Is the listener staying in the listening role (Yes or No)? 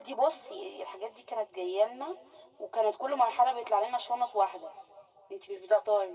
No